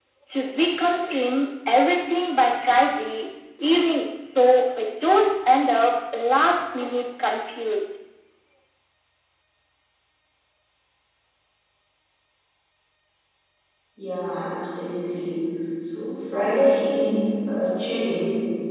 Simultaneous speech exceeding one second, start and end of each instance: none

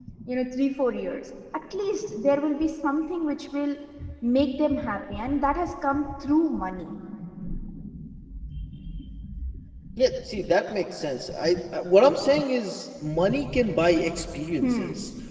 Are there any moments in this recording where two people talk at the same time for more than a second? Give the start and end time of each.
none

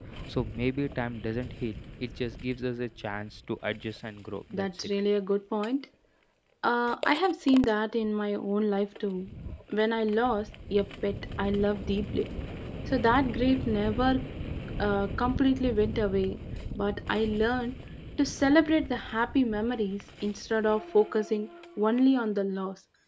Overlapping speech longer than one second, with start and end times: none

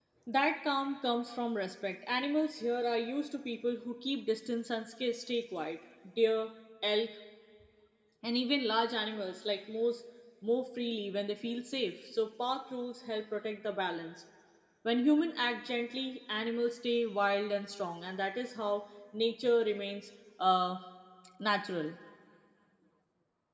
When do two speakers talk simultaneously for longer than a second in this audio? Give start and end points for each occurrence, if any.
none

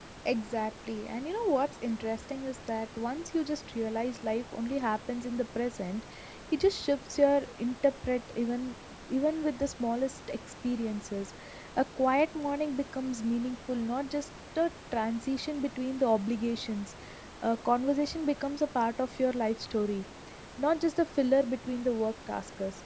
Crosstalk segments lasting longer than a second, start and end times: none

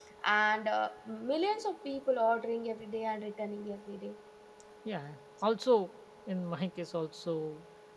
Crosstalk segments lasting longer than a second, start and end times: none

